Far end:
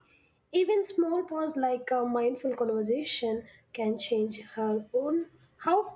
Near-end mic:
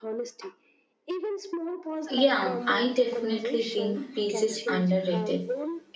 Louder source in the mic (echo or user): user